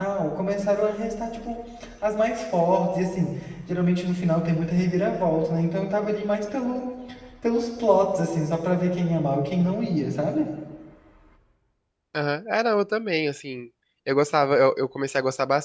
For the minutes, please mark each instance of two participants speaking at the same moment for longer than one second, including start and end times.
none

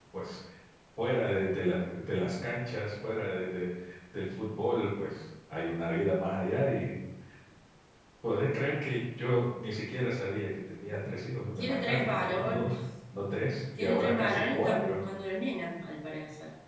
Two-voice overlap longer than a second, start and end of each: 11.6-12.8, 13.8-15.0

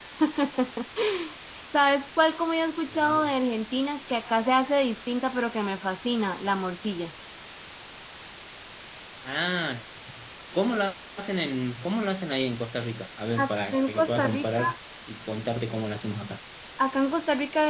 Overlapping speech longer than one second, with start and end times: 13.4-14.7

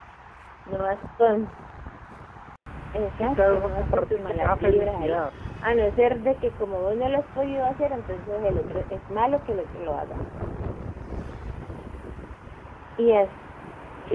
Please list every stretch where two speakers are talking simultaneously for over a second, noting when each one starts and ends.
3.2-5.2

